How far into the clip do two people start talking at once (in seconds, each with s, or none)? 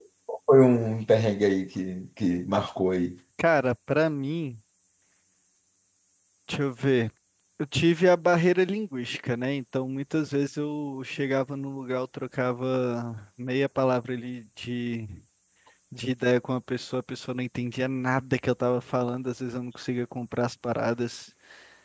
none